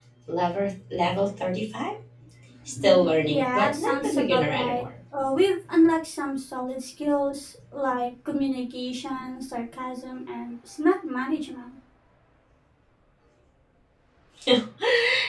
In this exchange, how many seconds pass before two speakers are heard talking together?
3.3 s

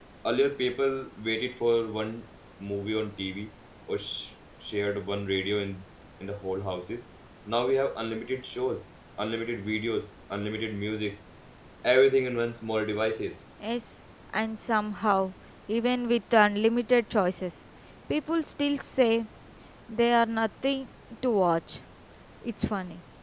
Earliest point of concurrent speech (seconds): none

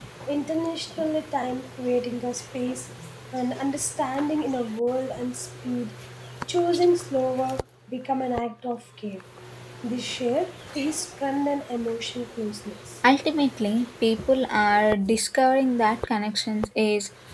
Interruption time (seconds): none

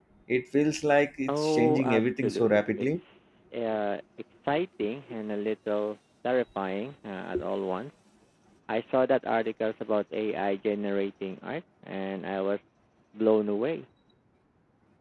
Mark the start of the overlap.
1.3 s

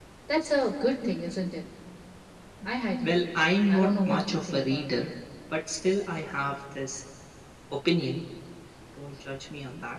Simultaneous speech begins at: 3.0 s

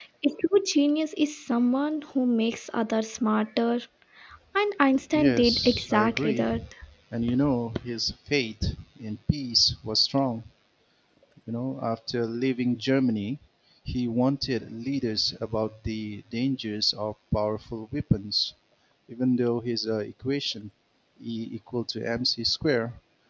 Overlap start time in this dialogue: 5.1 s

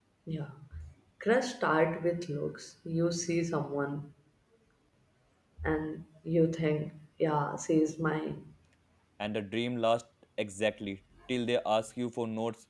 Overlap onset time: none

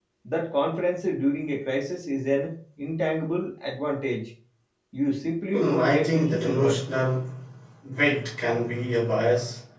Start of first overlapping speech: 5.5 s

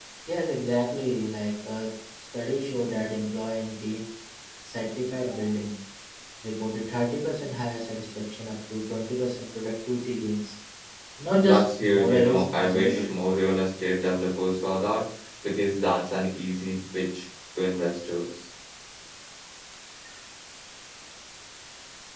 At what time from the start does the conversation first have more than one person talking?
11.4 s

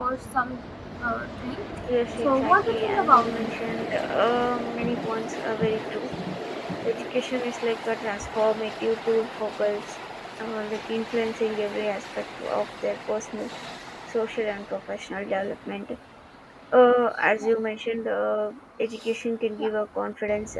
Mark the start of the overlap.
2.2 s

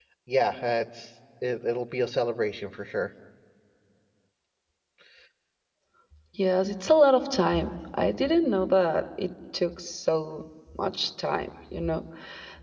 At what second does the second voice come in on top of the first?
none

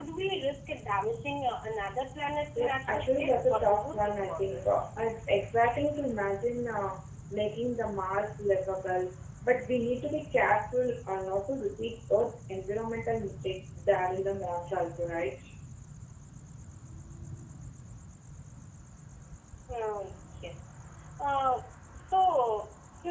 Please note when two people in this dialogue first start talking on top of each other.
2.6 s

